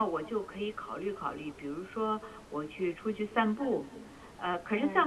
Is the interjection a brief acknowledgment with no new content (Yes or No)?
Yes